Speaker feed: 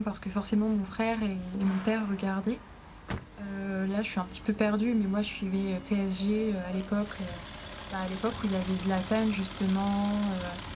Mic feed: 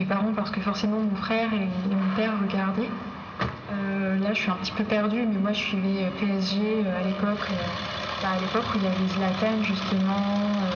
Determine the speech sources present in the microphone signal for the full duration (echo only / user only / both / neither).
echo only